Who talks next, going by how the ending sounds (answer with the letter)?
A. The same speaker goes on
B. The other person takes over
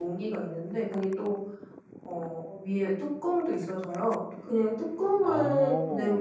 A